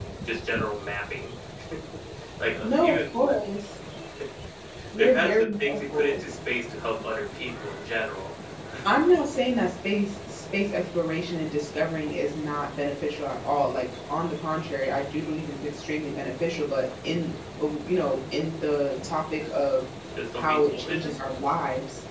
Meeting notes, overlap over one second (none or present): present